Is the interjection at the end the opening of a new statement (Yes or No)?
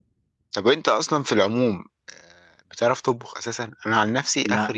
No